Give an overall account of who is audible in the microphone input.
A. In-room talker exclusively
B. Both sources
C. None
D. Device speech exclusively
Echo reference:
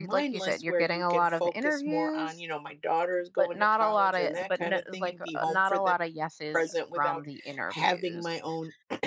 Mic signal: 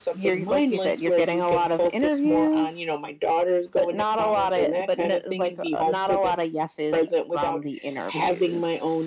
D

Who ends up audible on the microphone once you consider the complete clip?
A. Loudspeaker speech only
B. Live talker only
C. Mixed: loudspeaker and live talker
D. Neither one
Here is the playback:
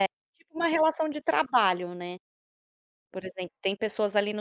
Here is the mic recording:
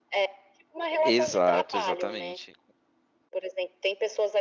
C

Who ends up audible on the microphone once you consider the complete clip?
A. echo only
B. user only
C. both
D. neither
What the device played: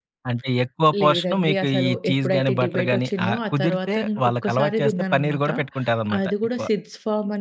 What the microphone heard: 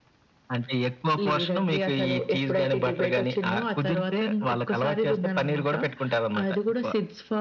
A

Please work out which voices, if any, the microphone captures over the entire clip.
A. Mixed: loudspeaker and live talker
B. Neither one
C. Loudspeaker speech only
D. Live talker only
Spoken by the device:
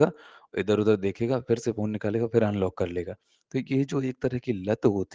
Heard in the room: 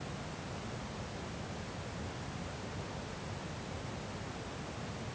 B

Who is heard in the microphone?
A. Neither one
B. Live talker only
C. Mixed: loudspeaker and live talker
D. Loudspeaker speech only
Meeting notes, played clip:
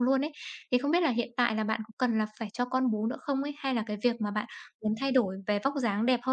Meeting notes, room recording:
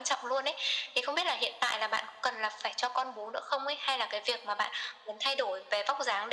D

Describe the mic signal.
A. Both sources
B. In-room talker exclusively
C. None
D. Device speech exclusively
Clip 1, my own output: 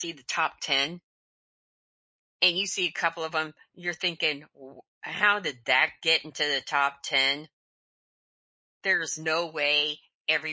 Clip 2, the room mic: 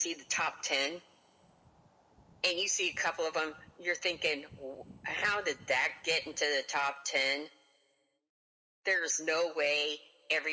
D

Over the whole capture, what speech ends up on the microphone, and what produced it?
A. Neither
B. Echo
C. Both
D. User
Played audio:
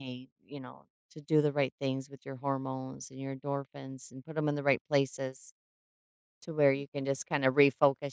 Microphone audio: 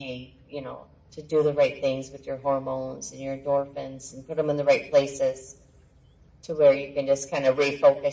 B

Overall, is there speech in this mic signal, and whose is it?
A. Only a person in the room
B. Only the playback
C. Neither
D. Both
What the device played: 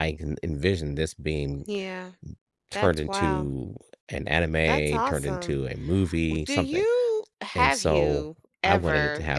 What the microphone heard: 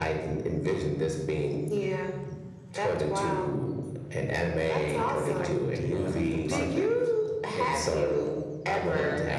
D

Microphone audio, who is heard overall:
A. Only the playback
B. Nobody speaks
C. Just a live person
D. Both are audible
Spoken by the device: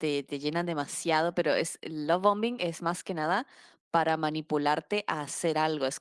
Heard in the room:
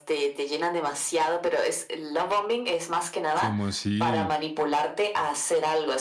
D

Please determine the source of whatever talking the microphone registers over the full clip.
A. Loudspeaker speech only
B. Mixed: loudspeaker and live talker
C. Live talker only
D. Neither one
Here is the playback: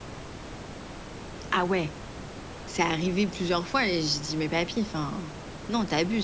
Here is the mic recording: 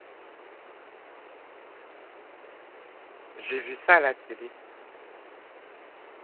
C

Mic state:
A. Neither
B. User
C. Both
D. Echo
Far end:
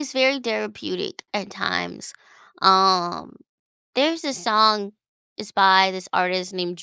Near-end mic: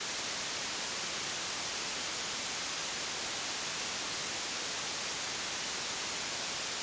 A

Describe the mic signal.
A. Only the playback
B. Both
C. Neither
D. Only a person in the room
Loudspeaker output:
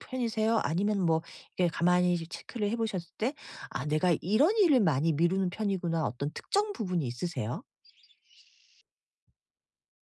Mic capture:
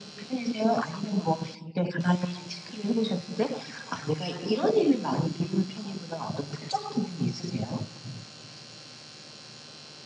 A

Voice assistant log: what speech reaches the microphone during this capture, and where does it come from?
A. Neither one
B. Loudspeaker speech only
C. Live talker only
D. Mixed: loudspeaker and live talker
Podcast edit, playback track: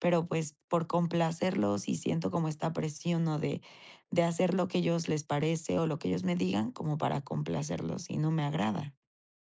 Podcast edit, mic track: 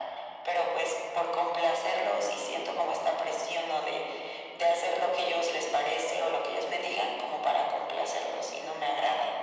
B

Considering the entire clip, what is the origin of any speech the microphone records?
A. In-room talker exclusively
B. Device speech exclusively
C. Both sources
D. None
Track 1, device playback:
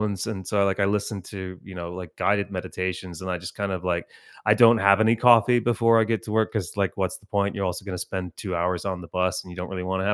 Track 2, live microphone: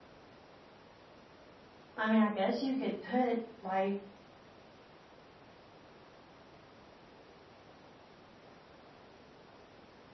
A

